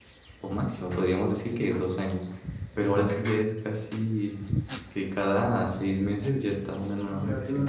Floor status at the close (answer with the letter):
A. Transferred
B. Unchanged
A